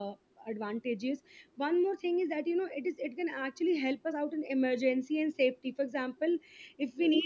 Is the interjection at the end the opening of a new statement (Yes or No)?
No